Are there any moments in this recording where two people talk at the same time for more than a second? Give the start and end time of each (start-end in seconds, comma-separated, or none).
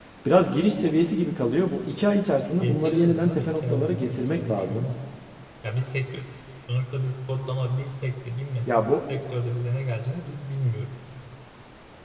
2.6-4.8